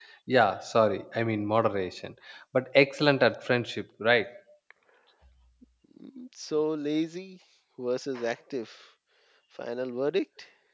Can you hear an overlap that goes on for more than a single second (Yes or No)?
No